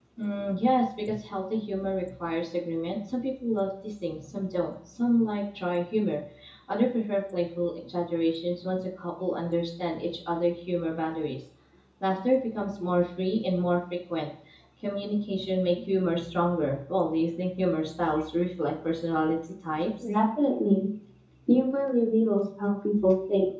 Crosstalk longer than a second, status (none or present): none